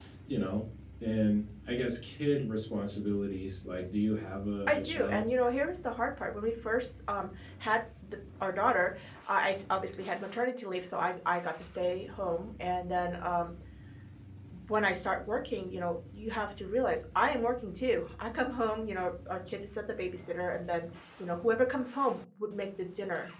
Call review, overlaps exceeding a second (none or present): none